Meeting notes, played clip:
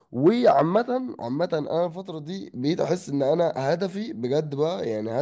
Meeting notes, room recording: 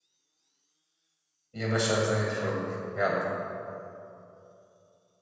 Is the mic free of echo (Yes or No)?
Yes